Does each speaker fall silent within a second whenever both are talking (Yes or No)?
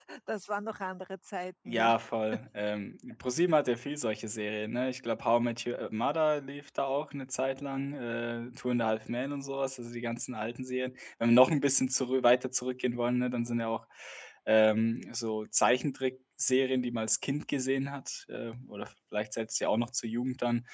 Yes